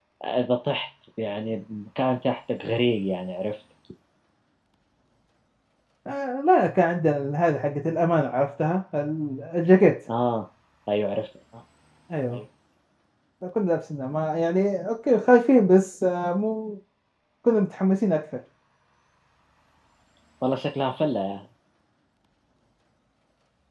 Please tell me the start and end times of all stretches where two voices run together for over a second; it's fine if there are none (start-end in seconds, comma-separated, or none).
none